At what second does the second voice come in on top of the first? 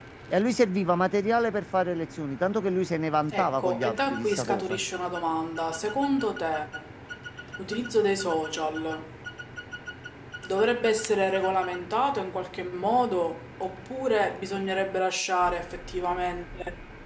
3 s

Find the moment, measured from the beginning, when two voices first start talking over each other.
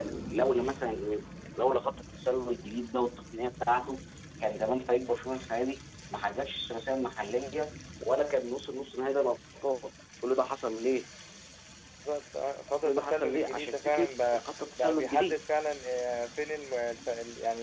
13 s

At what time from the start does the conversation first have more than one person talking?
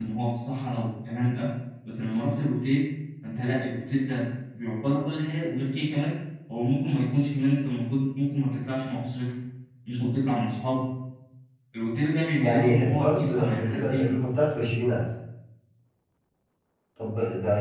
12 s

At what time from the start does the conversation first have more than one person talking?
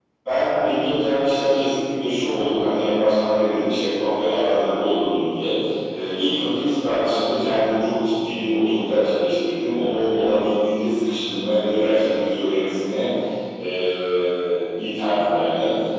none

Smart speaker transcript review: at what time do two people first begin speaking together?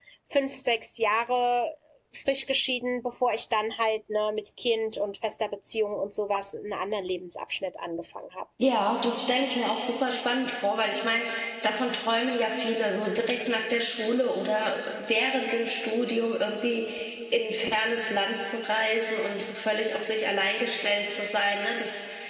none

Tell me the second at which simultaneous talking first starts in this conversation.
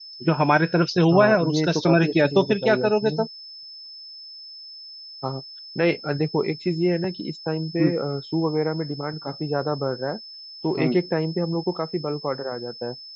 1 s

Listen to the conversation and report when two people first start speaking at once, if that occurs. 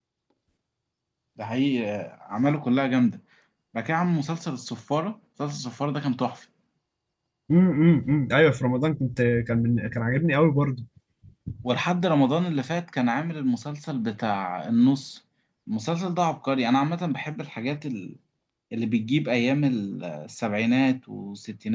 none

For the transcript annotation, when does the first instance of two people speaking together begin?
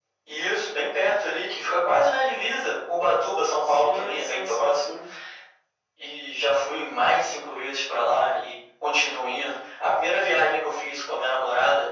4 s

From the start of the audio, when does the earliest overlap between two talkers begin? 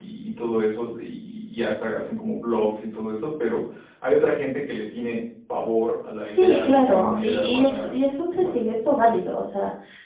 6 s

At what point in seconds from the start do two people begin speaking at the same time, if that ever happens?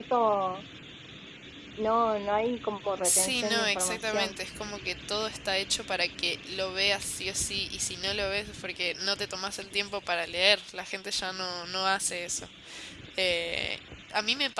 3 s

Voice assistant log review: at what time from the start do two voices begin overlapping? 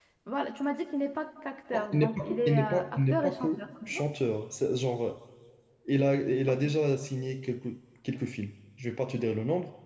2 s

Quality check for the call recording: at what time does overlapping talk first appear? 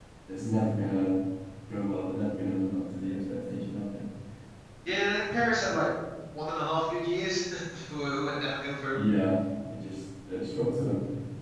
none

